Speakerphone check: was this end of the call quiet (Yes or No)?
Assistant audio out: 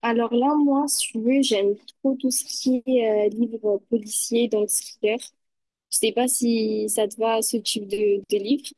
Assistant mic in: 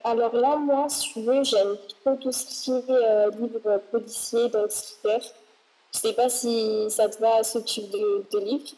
Yes